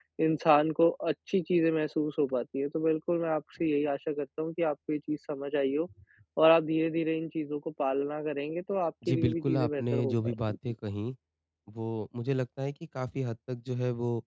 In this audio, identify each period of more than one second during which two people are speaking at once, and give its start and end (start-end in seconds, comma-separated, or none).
9.1-10.6